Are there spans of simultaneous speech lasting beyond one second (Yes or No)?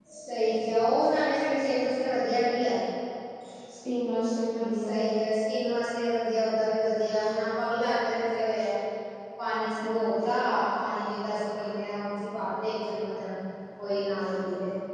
No